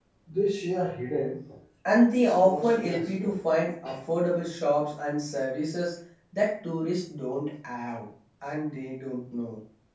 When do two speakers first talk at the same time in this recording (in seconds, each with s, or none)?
2.1 s